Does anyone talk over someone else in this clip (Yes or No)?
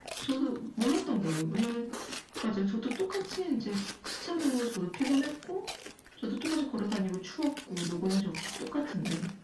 No